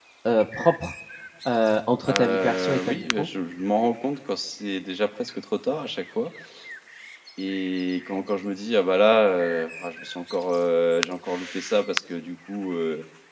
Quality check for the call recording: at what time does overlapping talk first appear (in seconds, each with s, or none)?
2.0 s